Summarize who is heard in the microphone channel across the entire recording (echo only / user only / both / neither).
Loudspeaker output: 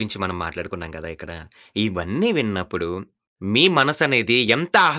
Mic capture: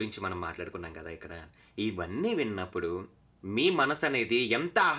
echo only